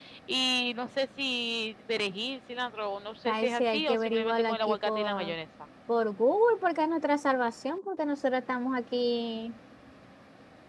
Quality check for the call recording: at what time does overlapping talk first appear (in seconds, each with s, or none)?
3.2 s